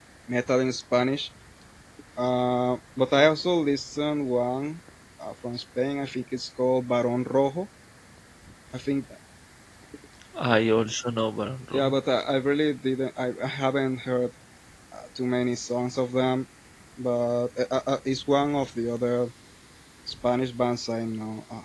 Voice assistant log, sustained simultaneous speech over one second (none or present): none